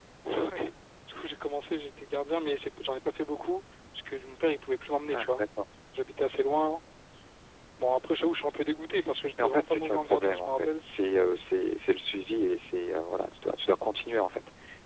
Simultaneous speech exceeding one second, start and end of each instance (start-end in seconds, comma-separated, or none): 9.4-10.8